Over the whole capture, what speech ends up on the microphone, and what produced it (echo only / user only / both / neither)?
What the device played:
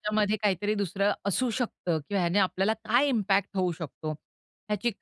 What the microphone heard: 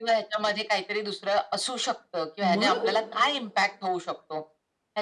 both